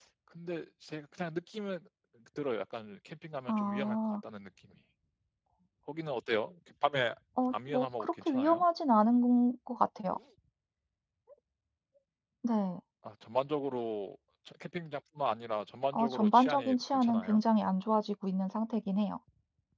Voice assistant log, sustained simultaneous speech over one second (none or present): present